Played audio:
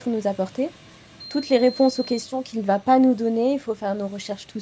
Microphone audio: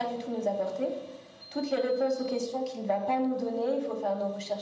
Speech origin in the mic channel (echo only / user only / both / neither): echo only